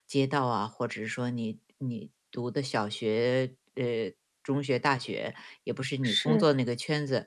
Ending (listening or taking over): listening